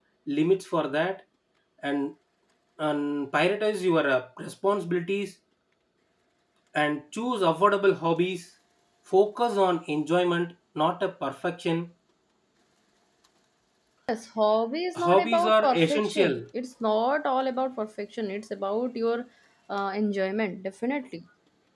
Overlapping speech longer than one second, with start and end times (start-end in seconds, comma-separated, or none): 15.0-16.4